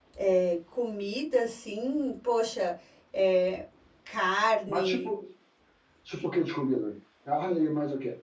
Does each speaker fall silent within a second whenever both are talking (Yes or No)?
Yes